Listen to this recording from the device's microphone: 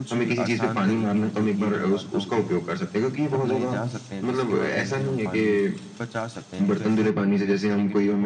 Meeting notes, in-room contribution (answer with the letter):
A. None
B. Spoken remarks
B